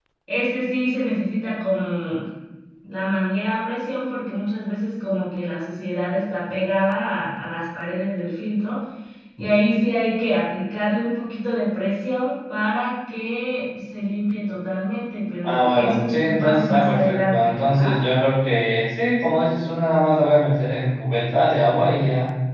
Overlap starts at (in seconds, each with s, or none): 15.4 s